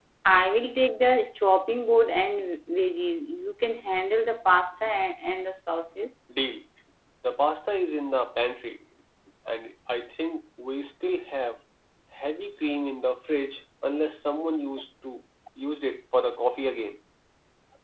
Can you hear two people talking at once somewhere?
No

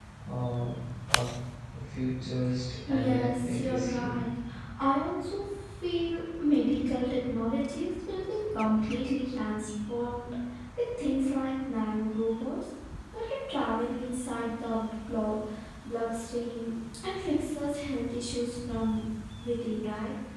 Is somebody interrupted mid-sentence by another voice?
Yes, from 2.9 s

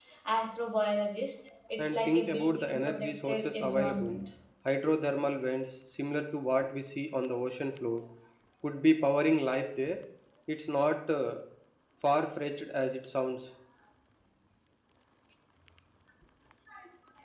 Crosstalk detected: Yes, from 1.8 s

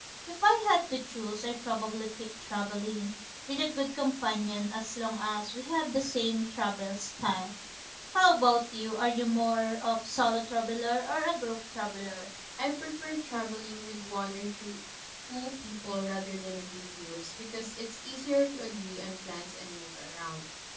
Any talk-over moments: No

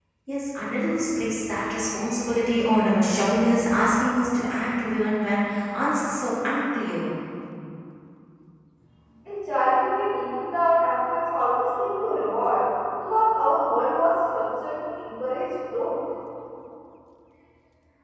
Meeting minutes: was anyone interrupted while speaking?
No

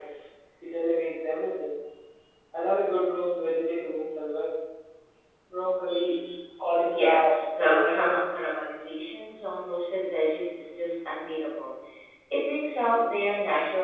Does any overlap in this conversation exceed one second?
Yes, from 6.8 s

